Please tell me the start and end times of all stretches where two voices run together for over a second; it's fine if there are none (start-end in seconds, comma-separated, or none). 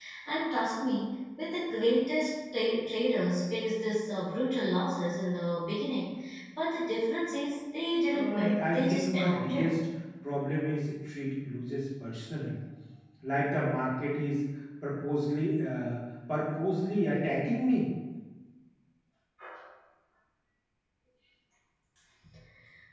8.1-9.8